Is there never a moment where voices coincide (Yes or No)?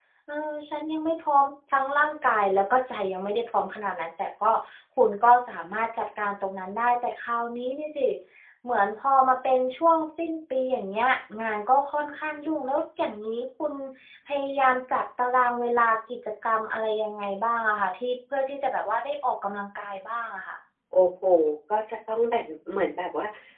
Yes